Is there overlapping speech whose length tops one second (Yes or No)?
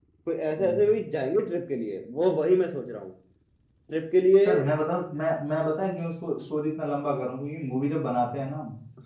No